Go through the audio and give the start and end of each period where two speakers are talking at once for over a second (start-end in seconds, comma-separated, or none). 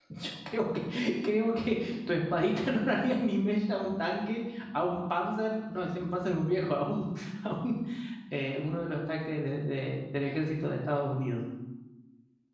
none